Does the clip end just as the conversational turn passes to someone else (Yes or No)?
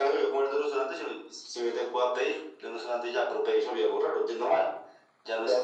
Yes